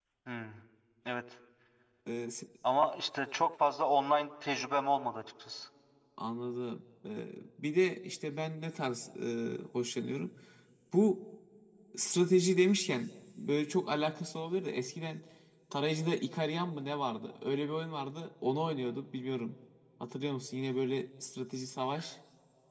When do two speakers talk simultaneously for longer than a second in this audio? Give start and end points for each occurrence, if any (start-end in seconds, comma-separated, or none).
none